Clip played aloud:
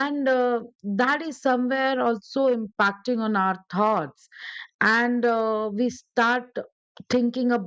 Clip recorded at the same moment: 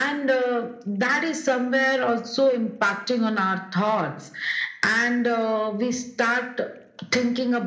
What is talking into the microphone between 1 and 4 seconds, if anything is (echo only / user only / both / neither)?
echo only